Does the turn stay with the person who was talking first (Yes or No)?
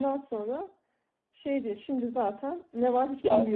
No